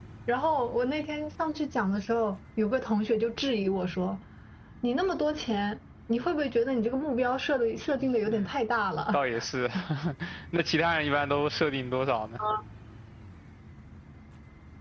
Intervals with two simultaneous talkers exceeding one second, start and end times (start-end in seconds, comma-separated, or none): none